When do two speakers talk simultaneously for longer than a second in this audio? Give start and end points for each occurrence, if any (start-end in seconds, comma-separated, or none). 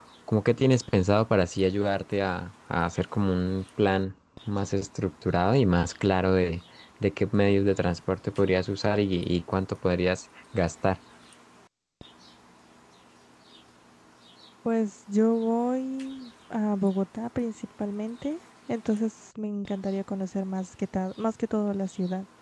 none